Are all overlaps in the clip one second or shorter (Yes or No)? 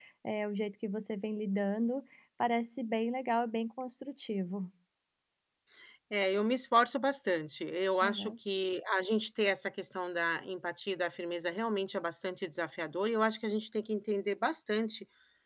Yes